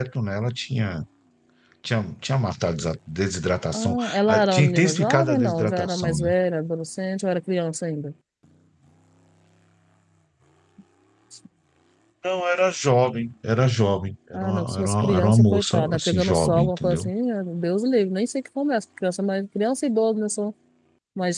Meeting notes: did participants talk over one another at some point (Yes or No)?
Yes